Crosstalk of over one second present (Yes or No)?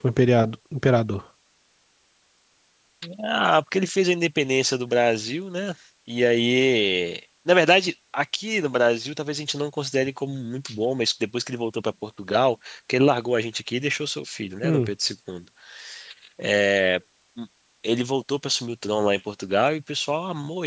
No